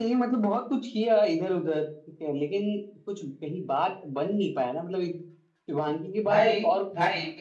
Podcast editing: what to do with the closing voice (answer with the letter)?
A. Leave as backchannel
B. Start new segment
A